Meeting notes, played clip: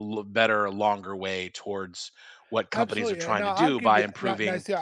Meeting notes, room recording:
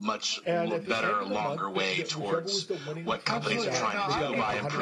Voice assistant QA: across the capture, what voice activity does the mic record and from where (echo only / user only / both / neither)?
both